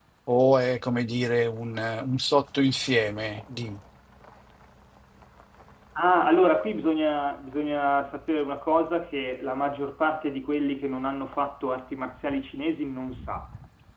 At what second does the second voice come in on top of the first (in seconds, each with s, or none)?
none